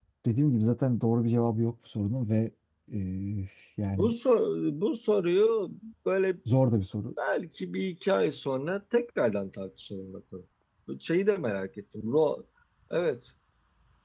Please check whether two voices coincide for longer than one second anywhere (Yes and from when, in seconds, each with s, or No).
No